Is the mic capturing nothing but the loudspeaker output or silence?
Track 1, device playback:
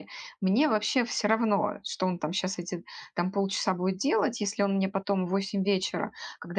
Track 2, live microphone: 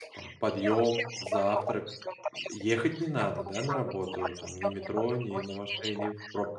No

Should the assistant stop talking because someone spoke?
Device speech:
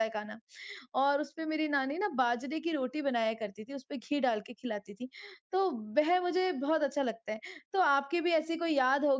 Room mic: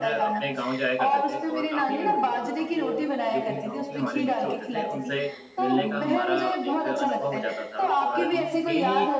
Yes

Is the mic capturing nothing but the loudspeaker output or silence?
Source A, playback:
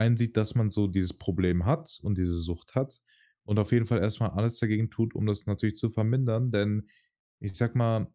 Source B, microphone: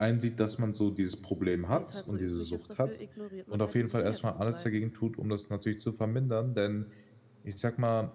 No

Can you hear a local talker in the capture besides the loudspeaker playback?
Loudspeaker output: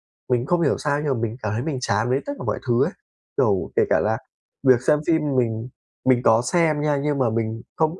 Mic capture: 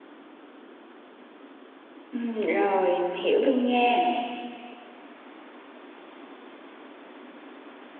Yes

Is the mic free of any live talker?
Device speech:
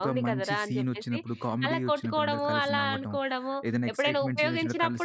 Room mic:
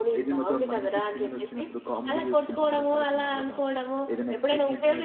Yes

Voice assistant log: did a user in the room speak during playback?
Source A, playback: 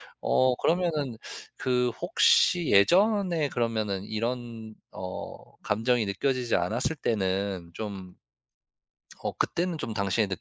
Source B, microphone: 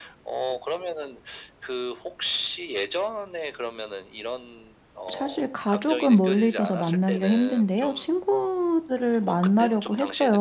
Yes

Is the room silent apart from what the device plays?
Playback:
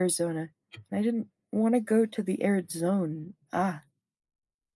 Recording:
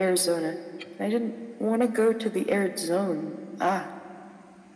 Yes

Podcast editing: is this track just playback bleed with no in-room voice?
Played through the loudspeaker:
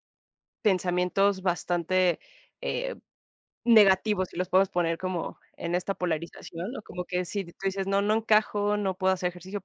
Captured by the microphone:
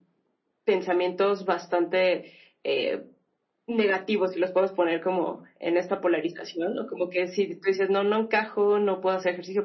Yes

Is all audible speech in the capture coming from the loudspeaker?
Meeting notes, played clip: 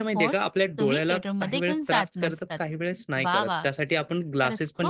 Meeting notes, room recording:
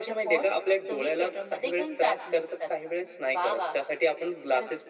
Yes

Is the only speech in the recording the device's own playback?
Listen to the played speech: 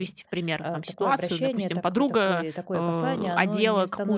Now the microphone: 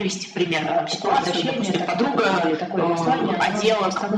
Yes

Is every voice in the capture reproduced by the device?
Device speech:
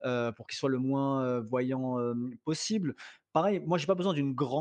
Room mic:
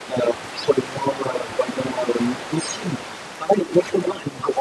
Yes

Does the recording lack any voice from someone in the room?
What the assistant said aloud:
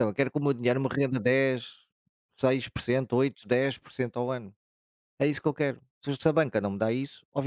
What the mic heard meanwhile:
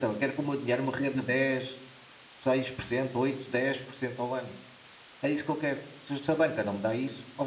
Yes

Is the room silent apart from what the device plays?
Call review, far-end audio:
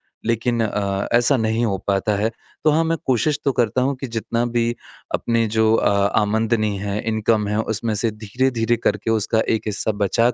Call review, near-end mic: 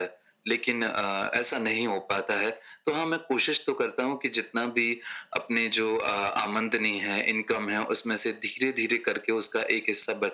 Yes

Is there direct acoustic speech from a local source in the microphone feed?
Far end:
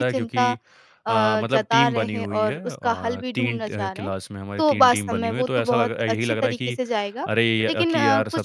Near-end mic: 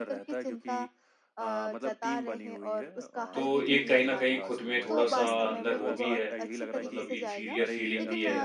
Yes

